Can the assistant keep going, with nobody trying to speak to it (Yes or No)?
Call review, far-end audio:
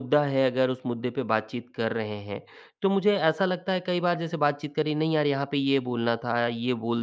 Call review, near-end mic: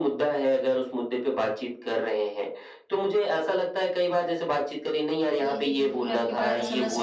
No